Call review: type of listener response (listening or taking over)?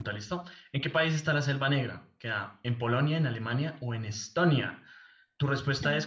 taking over